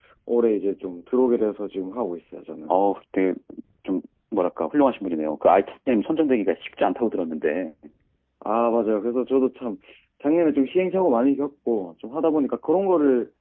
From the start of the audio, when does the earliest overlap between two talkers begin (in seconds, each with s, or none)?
none